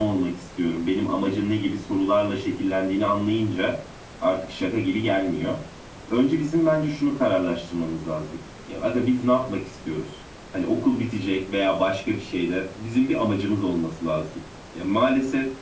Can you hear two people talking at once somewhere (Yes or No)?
No